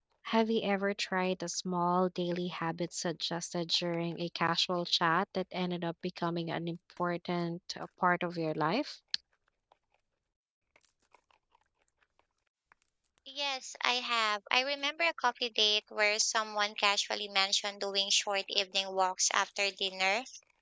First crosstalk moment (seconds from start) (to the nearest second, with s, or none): none